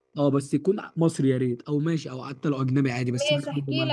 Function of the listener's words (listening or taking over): taking over